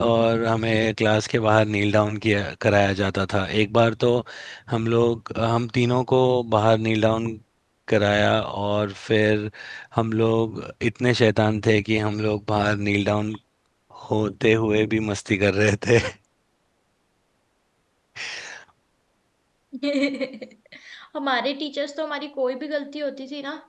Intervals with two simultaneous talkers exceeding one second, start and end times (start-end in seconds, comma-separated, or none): none